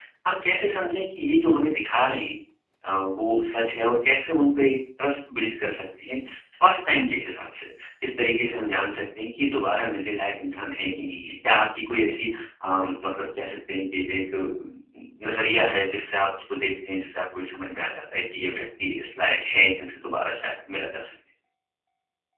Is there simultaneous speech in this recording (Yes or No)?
No